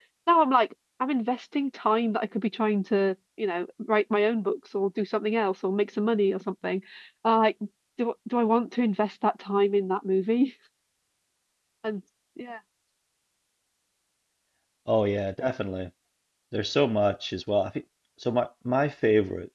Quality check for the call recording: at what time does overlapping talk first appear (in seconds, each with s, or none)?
none